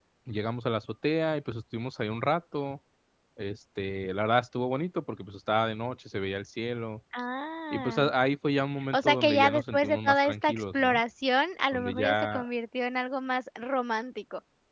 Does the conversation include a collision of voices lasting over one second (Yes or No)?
Yes